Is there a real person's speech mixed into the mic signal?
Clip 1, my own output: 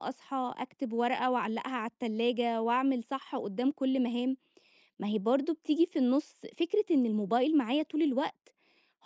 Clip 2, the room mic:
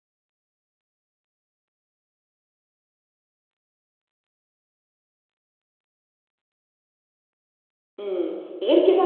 Yes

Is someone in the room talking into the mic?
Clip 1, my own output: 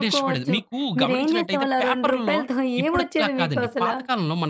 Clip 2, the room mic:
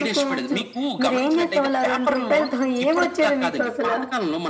No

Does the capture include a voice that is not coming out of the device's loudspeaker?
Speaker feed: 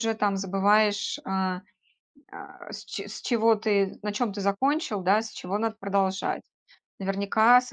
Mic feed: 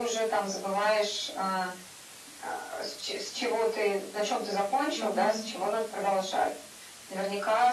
Yes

